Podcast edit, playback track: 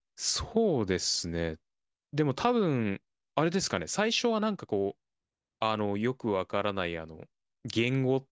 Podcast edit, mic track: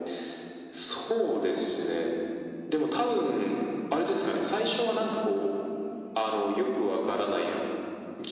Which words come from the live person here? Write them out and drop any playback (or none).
none